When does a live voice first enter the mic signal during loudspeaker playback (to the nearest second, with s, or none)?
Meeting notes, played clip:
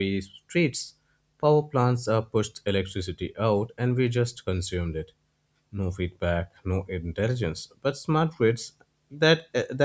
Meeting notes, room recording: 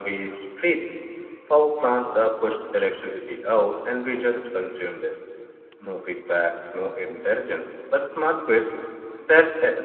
none